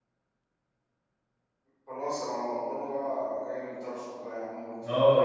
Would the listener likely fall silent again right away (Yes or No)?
No